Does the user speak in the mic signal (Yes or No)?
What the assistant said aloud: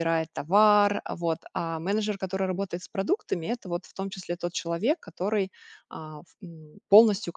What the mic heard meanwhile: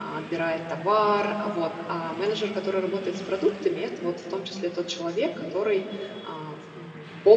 No